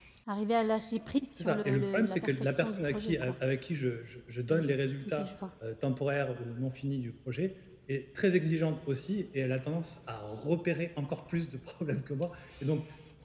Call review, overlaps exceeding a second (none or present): present